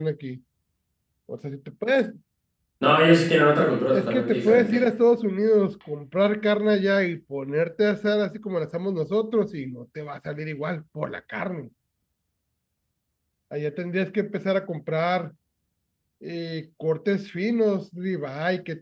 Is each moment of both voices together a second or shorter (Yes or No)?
No